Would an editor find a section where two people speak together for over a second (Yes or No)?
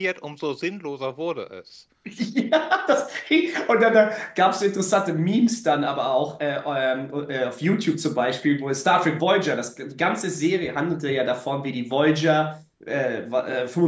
No